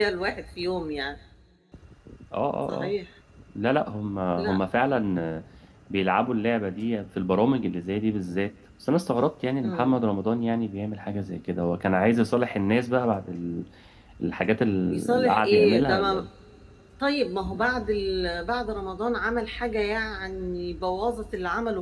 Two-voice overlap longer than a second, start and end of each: 14.9-16.2

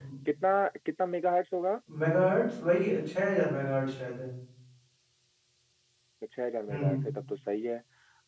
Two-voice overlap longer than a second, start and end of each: none

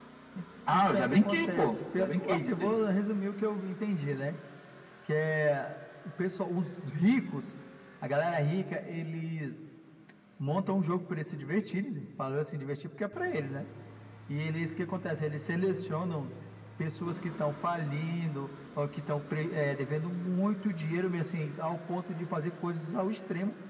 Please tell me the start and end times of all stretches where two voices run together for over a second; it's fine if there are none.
0.7-2.8

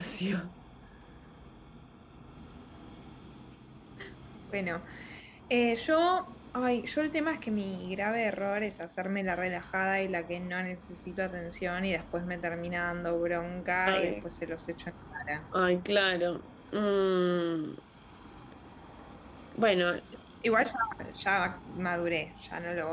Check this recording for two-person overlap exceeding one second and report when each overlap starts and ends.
none

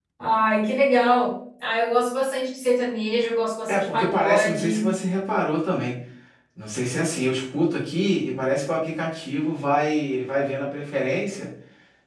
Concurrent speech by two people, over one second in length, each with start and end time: 3.7-4.9

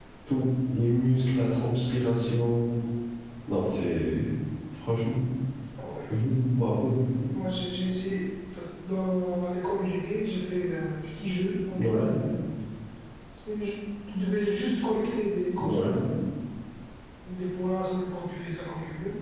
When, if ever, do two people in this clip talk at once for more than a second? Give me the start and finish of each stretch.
none

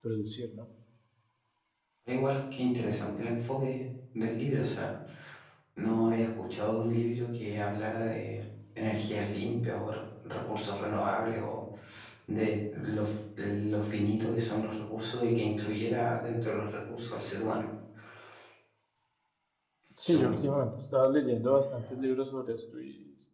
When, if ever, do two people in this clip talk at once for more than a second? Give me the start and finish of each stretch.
none

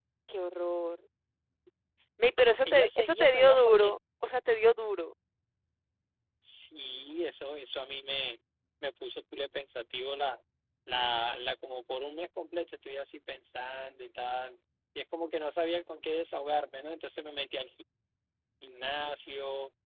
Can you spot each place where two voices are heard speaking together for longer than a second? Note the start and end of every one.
2.6-4.0

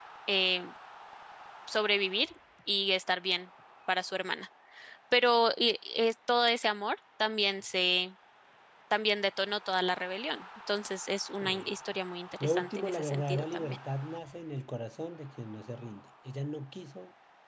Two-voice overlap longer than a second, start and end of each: 12.4-13.8

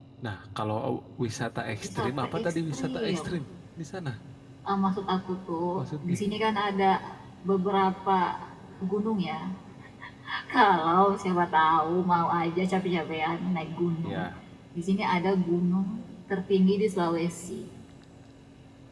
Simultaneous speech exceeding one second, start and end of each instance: 1.8-3.4

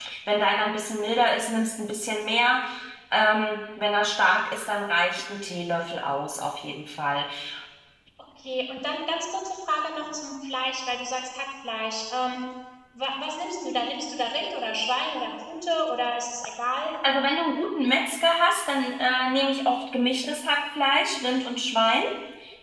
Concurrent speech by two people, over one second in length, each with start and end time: none

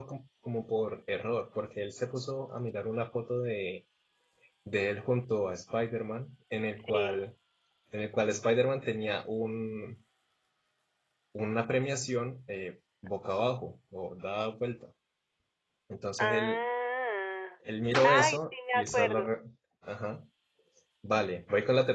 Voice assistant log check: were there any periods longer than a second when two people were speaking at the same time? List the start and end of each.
17.8-19.3

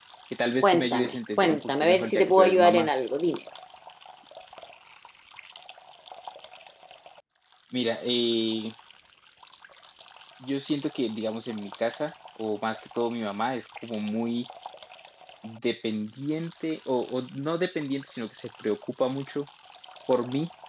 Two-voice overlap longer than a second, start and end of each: 0.6-2.9

